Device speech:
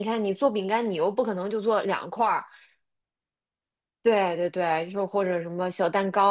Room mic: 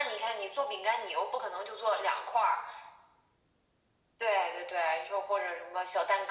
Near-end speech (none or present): none